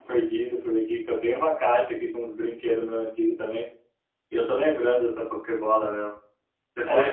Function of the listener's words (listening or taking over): listening